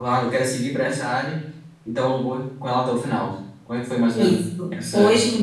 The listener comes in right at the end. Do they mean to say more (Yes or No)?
Yes